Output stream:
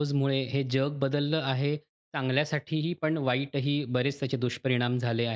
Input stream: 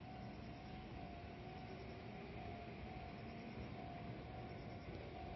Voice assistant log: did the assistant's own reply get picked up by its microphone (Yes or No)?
No